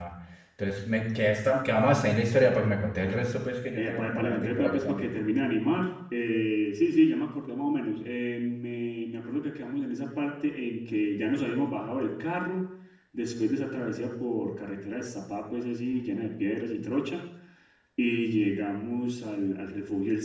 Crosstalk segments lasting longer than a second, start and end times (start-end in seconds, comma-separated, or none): 3.8-5.1